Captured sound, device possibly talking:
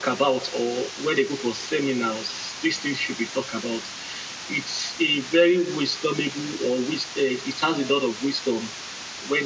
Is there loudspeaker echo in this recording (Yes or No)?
Yes